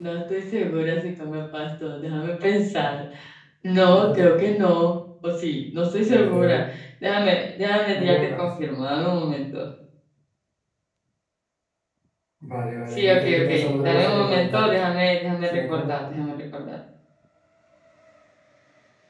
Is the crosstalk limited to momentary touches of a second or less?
No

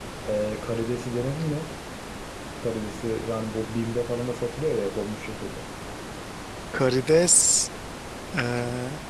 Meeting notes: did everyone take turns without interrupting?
Yes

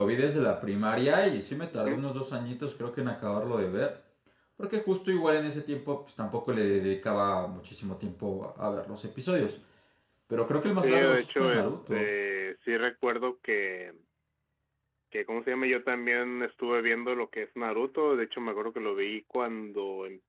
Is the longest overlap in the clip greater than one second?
Yes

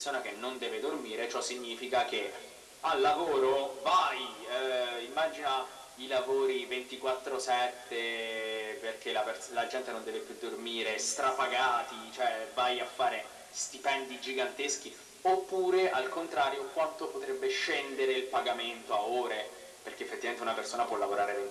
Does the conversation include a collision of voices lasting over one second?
No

